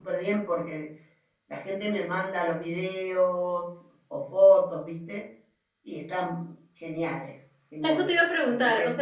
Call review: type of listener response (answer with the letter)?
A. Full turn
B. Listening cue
A